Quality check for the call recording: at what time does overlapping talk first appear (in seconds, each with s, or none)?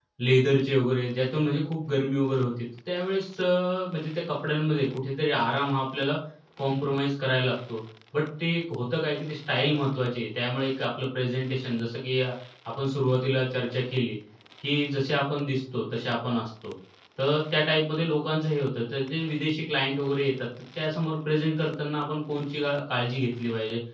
none